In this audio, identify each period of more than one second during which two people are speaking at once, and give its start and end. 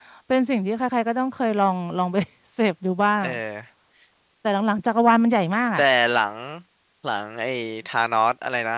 none

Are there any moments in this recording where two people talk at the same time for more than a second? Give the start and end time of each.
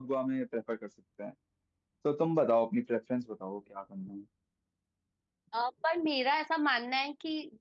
none

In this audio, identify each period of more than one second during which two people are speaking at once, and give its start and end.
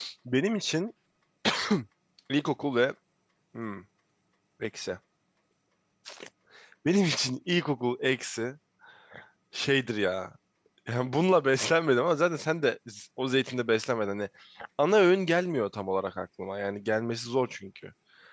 none

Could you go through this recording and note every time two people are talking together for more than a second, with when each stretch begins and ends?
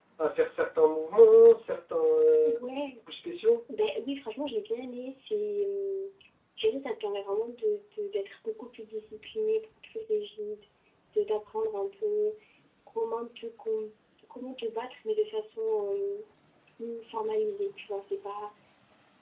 none

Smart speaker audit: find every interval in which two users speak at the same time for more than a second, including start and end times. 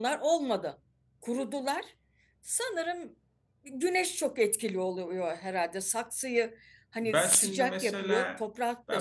7.0-8.4

